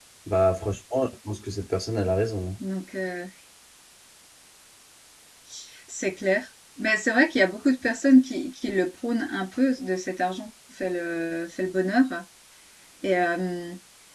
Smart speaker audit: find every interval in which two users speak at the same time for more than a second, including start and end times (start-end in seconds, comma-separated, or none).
none